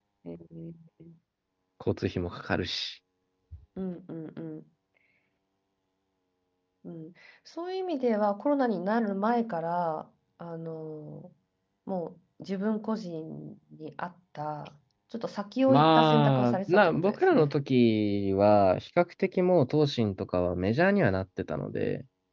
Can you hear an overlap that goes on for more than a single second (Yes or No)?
Yes